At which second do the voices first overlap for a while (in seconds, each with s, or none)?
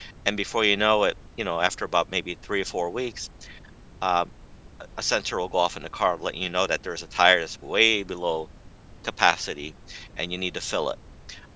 none